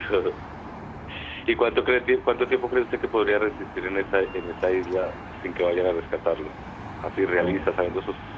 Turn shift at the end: No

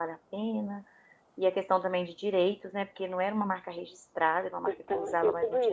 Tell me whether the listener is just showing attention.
No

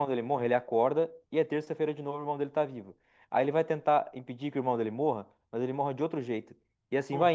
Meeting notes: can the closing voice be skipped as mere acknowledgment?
Yes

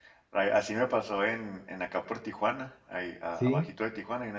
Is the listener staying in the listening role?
Yes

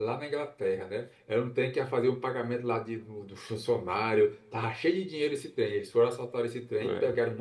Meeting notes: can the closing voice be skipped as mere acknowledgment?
Yes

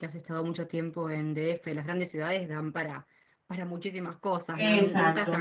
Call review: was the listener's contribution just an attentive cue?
No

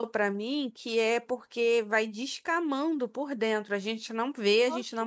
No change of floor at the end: Yes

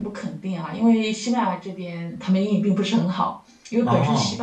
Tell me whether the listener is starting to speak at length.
No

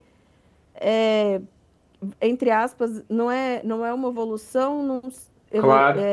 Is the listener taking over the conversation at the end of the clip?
No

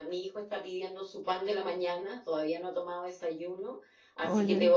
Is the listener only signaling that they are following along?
Yes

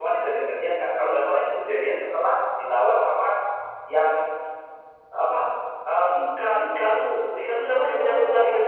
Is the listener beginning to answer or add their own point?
Yes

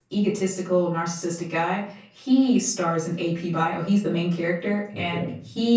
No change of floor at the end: Yes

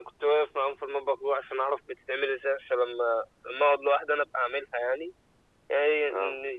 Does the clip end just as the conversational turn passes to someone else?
No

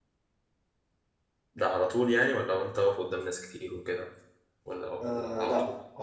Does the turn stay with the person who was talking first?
No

